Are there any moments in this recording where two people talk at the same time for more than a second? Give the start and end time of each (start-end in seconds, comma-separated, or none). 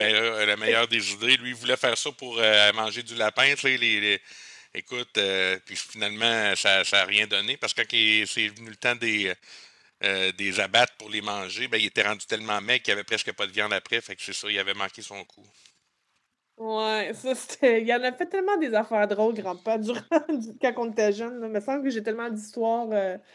none